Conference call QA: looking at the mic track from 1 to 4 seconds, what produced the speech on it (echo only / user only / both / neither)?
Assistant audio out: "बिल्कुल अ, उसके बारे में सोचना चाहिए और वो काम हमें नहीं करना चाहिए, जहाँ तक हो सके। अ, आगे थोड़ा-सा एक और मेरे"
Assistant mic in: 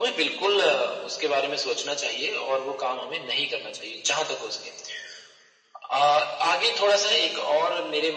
echo only